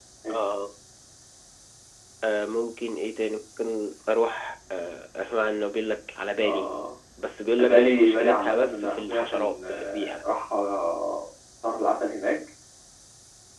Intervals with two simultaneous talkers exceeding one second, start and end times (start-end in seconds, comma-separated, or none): 7.6-10.2